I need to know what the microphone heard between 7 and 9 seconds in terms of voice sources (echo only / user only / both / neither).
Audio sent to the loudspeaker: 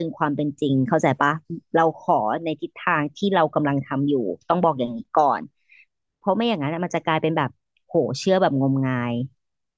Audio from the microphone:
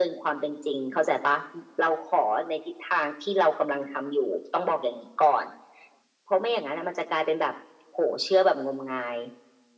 echo only